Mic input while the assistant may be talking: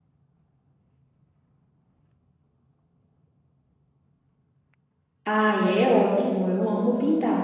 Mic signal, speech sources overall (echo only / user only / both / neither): user only